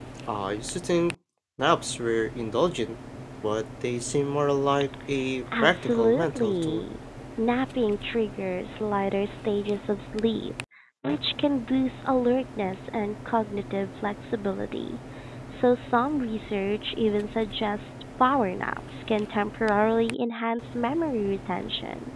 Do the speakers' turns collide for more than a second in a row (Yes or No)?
Yes